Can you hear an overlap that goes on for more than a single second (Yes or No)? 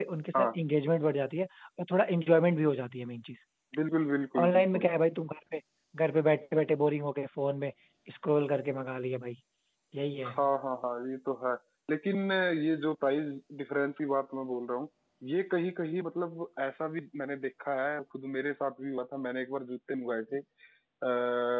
No